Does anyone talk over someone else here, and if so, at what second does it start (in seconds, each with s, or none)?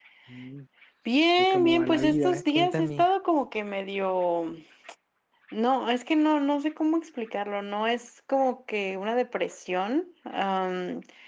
1.4 s